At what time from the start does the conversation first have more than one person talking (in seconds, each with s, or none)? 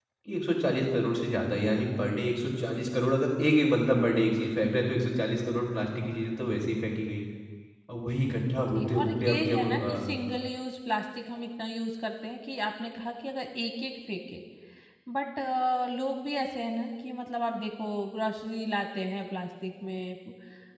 8.8 s